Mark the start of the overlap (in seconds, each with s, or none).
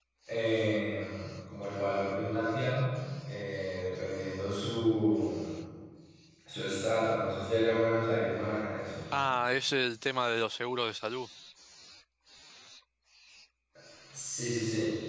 none